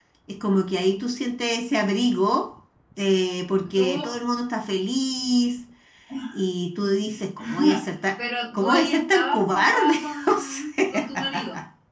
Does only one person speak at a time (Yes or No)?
No